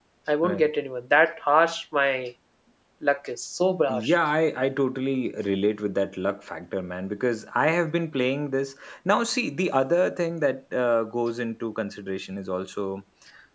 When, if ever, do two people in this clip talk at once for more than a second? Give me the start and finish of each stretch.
none

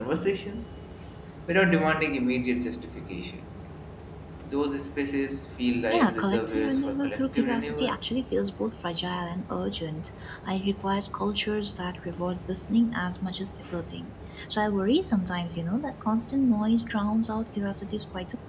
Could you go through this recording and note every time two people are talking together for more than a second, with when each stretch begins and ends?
5.9-8.1

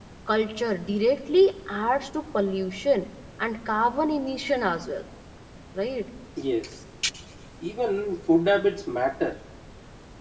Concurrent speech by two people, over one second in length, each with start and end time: none

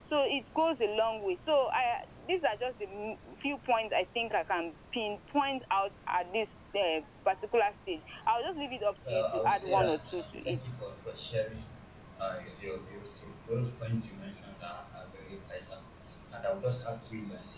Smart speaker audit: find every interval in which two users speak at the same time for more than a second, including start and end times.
9.1-10.6

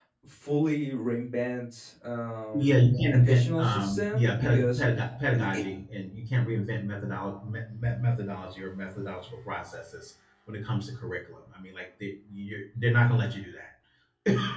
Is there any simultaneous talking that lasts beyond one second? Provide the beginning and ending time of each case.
3.1-4.8

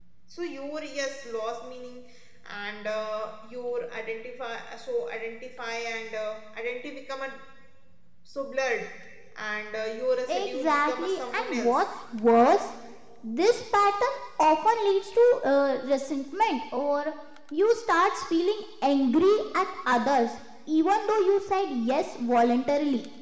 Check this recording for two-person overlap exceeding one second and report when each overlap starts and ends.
10.3-11.8

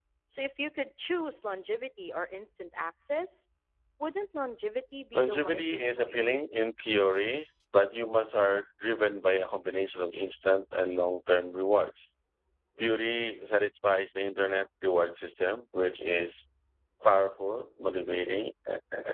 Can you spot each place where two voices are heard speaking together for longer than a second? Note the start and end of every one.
5.1-6.5

